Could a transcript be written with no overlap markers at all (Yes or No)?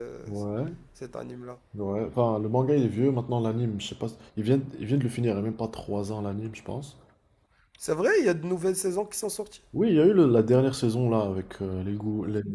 Yes